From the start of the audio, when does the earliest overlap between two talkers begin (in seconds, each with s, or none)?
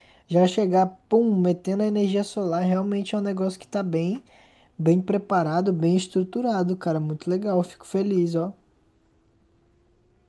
none